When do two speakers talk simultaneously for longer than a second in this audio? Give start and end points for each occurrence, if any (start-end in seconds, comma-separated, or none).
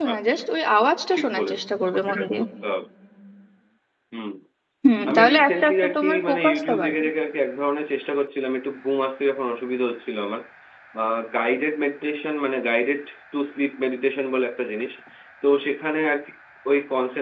5.1-7.0